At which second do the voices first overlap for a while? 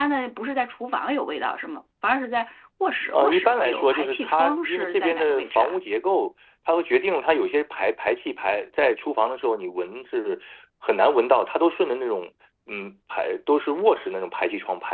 3.1 s

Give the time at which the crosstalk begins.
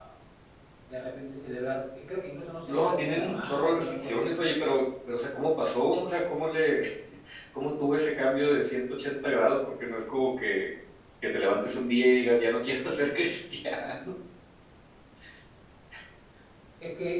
2.7 s

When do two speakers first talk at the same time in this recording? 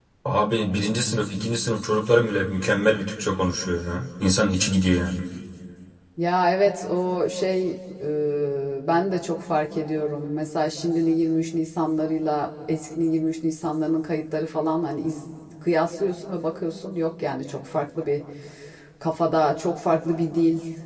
none

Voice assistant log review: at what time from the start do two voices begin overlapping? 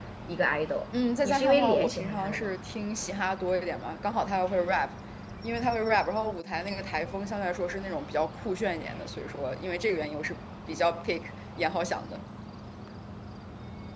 1.2 s

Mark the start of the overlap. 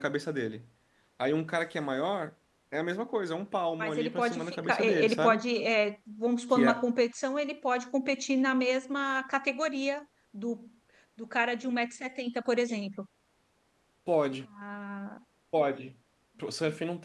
3.8 s

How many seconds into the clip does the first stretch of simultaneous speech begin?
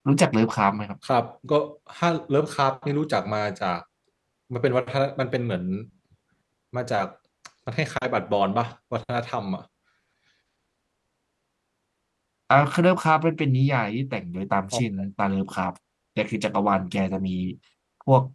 none

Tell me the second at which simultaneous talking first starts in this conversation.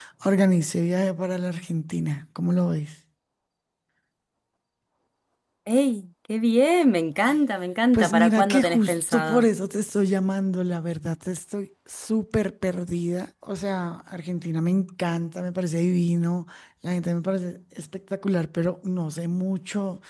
7.9 s

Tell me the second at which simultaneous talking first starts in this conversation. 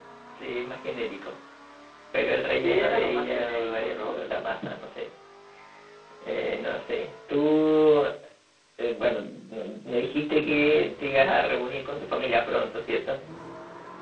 2.6 s

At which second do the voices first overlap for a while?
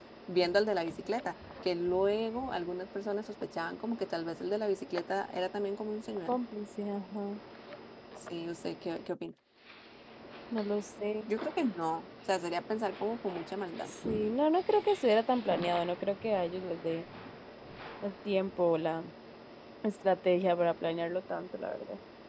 none

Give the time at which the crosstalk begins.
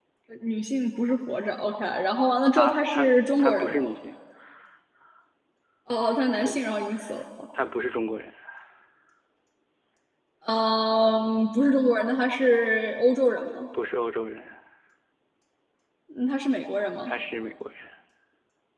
2.6 s

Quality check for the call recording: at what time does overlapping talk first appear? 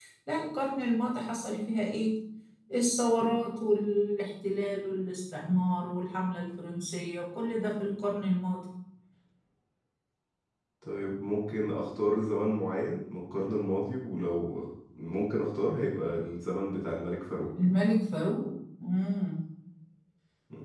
none

